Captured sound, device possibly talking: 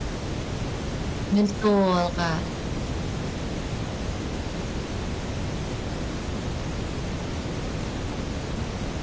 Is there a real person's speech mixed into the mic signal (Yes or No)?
Yes